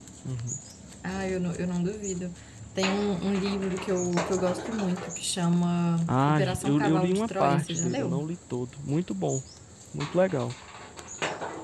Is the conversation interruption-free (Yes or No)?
No